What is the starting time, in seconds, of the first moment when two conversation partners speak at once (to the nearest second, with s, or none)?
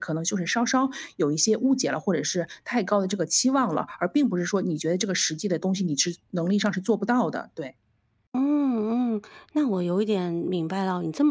none